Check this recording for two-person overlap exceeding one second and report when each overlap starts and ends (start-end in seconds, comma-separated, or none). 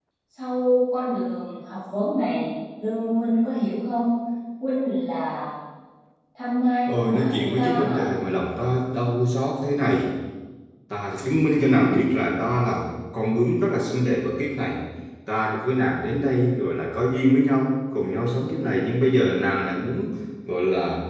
6.9-8.1